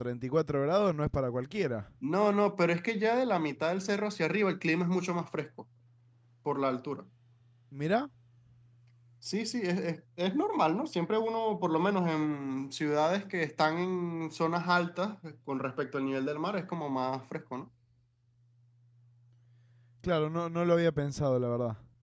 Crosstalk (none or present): none